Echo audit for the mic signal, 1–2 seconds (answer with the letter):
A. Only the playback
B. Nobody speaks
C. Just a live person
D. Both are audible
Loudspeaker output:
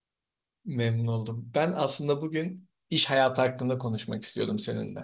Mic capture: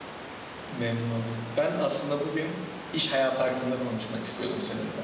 A